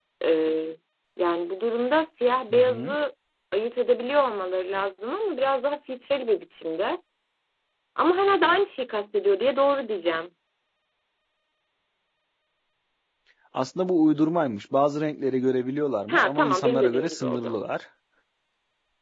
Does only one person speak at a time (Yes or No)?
No